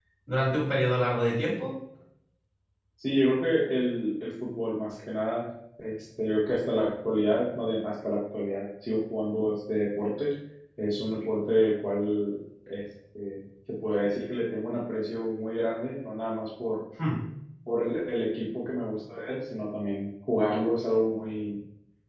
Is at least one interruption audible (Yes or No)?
No